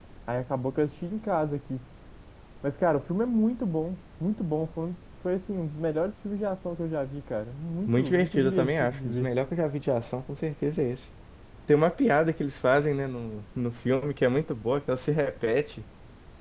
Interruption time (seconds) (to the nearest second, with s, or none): 8 s